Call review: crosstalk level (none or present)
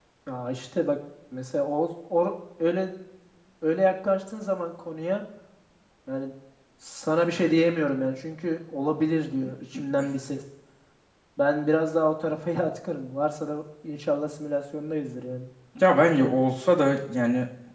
none